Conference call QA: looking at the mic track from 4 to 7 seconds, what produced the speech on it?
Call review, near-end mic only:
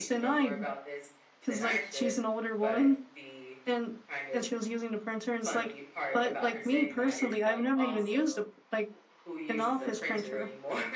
both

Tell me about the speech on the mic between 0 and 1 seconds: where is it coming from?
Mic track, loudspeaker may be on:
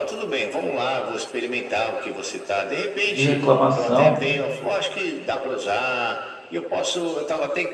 echo only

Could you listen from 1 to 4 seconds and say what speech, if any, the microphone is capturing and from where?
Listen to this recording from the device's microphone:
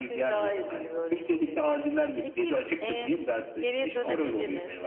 both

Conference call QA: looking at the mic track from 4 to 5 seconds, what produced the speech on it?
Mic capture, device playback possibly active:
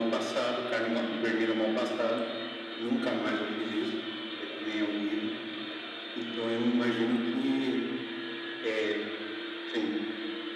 echo only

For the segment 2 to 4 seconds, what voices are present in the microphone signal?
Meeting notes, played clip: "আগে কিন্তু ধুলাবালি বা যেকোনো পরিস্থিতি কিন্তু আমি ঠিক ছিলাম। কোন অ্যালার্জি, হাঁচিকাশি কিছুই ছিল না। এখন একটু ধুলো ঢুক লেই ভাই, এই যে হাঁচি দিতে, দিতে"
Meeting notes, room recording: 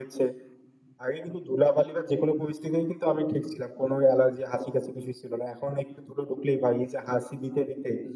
echo only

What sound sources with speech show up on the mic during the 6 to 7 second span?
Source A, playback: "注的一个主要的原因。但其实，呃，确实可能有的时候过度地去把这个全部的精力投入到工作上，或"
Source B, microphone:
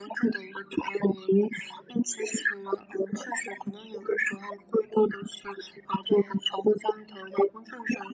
both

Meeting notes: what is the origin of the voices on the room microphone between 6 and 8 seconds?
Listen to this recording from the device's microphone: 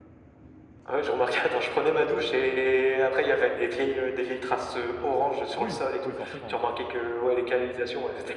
both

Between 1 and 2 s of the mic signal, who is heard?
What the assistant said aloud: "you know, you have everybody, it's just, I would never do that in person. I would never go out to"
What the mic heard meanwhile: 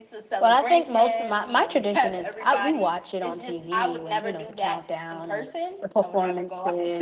both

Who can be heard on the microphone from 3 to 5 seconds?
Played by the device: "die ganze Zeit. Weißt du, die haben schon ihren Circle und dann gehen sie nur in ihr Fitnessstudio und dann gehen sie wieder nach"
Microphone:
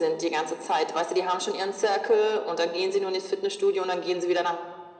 echo only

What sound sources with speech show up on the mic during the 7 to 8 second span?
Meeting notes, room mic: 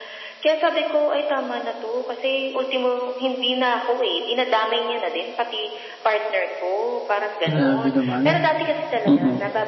both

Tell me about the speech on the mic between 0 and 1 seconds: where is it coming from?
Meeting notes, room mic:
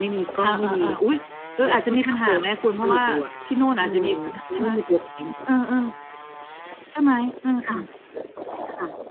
echo only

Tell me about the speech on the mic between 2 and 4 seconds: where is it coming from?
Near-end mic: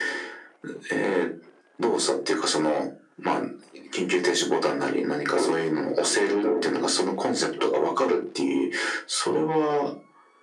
echo only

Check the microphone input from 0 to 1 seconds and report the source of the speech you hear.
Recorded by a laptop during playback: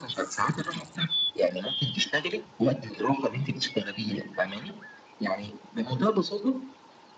echo only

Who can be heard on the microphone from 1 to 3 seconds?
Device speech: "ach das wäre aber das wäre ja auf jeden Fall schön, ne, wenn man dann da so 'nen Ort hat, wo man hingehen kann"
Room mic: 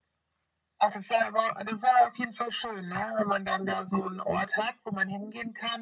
echo only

